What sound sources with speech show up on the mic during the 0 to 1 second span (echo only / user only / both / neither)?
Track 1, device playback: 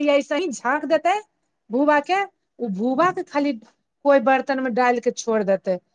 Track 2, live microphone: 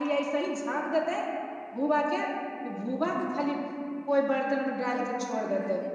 echo only